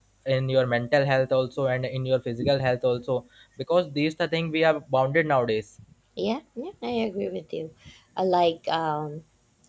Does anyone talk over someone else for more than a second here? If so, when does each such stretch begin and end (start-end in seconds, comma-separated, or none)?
none